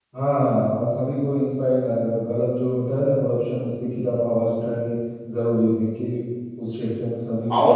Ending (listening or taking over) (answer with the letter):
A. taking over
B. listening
A